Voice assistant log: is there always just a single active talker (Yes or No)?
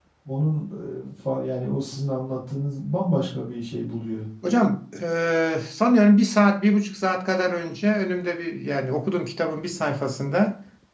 Yes